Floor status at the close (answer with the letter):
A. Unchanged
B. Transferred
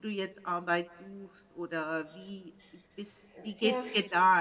A